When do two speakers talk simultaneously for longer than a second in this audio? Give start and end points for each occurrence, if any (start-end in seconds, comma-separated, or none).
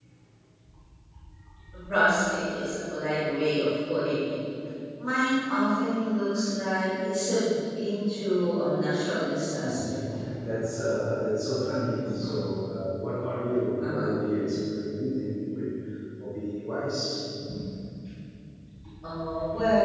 none